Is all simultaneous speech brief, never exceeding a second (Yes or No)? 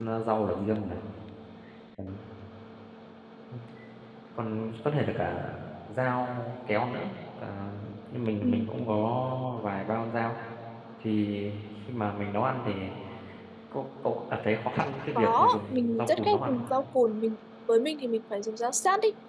No